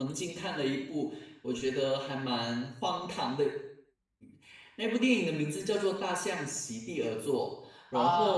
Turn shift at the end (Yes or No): Yes